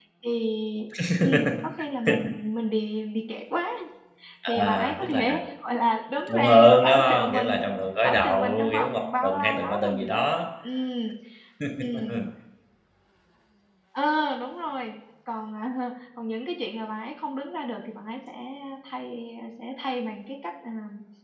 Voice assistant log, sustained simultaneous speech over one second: present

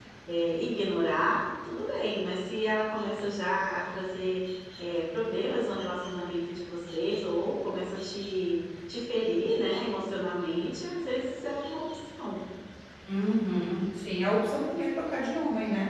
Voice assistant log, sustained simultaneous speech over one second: none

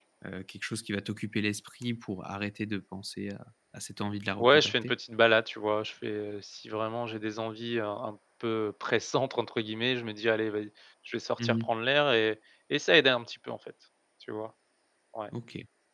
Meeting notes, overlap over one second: none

